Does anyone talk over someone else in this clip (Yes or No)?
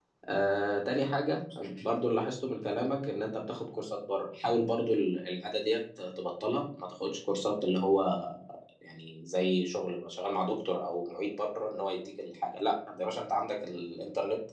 No